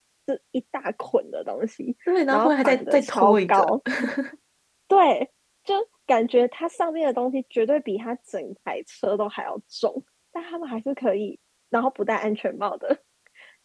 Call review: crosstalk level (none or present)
present